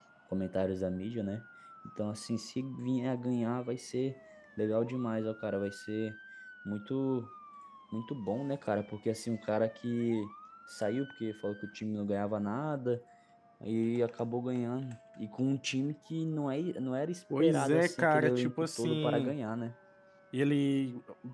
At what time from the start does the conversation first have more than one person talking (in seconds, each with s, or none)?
17.3 s